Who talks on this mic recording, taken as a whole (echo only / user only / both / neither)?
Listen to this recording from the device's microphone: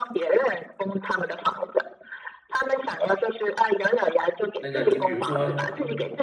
both